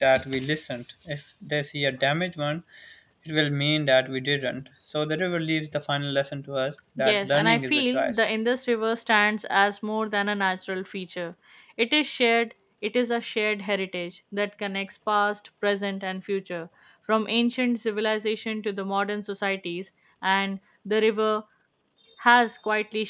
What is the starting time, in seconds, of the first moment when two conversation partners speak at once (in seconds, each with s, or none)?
7.0 s